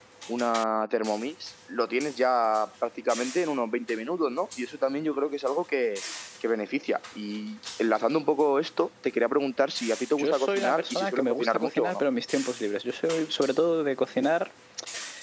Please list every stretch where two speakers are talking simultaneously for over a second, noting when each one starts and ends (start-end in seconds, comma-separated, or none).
10.2-12.0